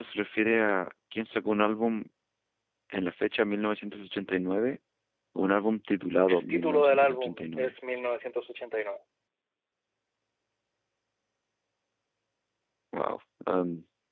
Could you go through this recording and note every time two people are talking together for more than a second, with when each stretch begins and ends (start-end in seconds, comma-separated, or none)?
6.3-7.7